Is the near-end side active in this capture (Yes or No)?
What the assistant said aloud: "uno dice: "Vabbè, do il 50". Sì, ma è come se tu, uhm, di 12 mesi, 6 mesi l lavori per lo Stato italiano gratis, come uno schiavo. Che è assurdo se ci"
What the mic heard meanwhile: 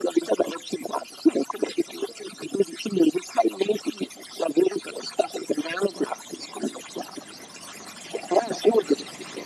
No